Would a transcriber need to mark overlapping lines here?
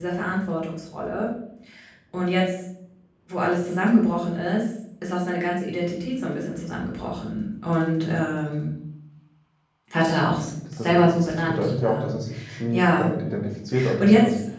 Yes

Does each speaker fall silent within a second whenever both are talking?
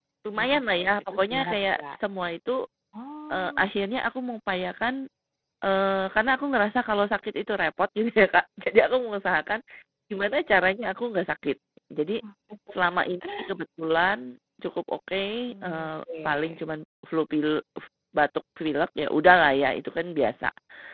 No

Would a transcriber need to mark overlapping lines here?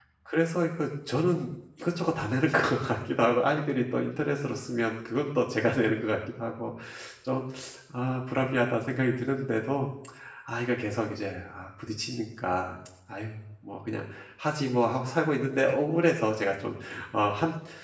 No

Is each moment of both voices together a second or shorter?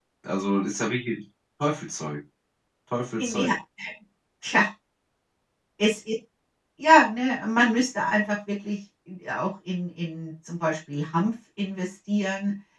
Yes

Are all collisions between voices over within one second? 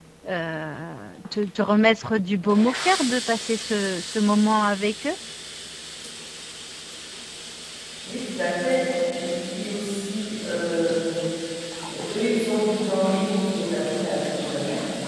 Yes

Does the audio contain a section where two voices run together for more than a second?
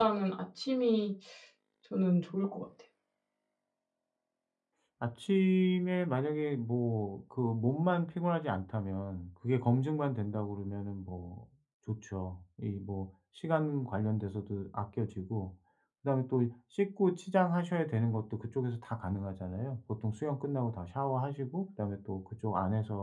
No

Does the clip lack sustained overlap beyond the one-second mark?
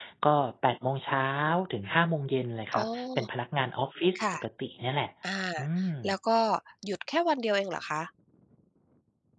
Yes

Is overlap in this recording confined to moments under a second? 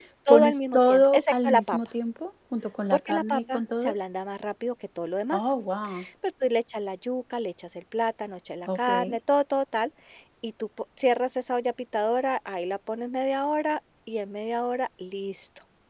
No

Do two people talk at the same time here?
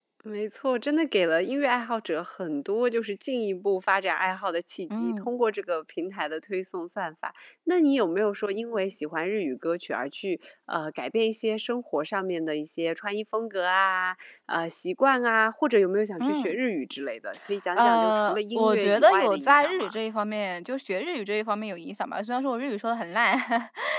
Yes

